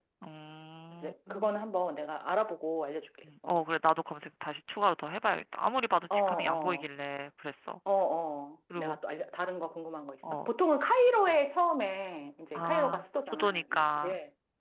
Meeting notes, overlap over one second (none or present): present